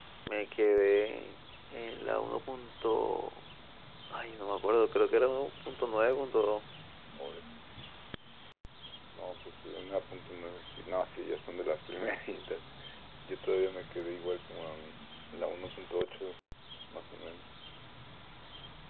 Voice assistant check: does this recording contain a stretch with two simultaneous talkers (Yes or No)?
No